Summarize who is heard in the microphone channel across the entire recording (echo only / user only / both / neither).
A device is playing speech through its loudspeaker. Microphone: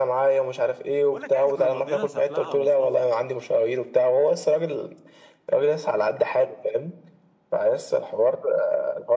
both